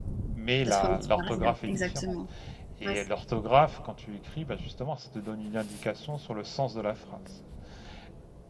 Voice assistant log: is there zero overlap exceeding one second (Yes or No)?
No